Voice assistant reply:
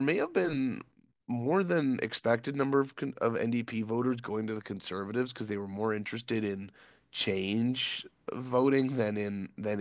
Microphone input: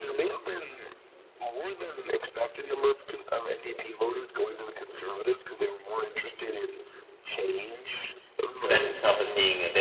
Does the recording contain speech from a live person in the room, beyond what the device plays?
Yes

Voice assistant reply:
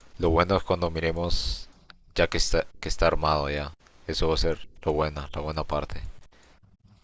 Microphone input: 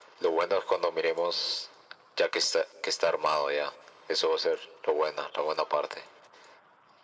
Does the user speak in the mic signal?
No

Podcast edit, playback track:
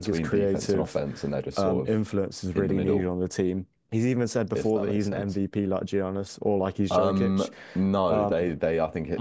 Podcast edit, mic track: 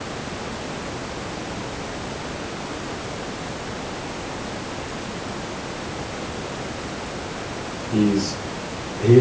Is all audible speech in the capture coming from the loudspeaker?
No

